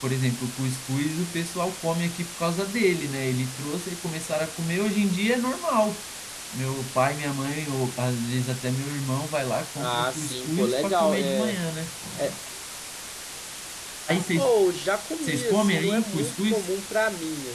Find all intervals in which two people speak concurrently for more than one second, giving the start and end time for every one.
9.8-11.6, 15.2-16.7

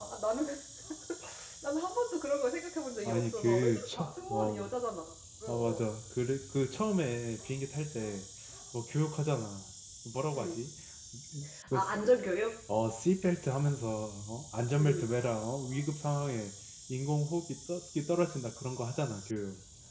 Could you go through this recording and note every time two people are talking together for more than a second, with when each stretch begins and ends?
3.0-4.7

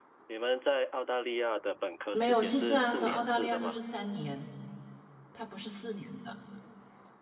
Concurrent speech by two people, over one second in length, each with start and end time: 2.1-3.8

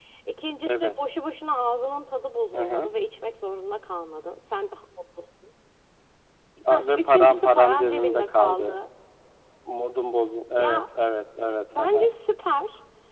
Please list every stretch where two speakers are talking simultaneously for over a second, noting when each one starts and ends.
6.7-8.8

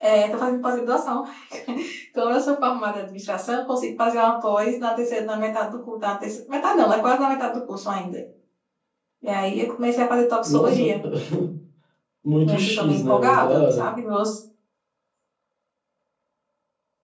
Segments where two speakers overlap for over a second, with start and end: 12.4-13.8

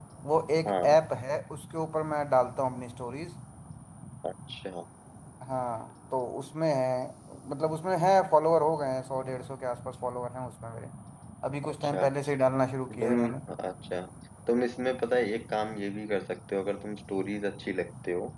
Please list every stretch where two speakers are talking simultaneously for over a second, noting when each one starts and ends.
none

